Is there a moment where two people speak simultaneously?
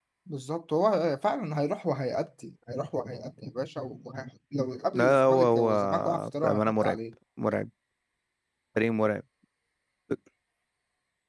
Yes, from 4.9 s

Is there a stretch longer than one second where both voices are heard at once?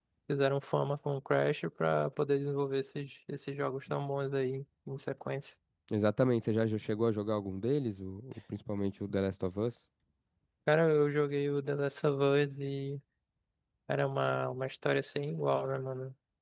No

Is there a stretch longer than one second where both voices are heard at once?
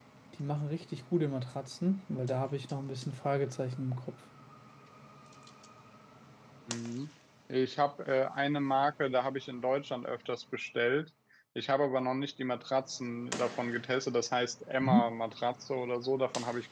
No

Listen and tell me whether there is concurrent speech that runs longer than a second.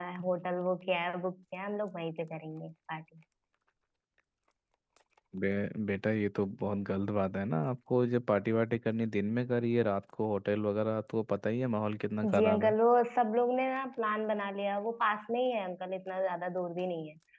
No

